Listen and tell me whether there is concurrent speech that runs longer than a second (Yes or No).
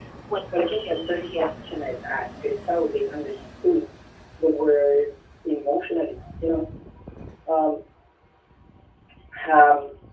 Yes